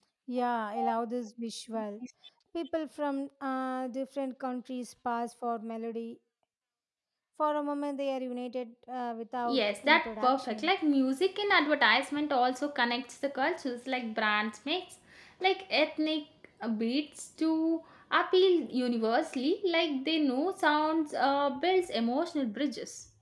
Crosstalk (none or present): present